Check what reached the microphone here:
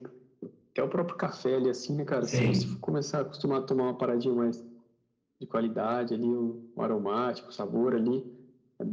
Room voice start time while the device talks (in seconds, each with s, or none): 2.2 s